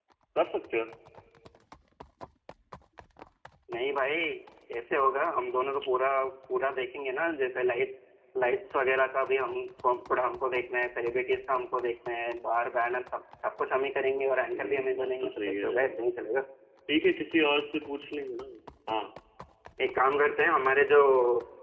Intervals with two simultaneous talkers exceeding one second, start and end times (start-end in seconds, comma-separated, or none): 14.5-16.0